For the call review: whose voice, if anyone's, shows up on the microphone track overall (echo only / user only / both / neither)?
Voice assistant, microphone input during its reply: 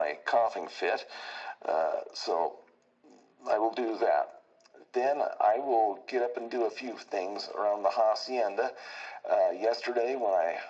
echo only